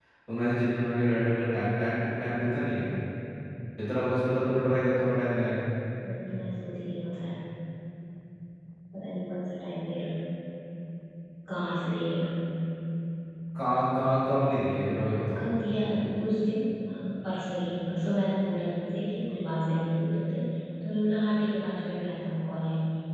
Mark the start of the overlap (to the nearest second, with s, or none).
none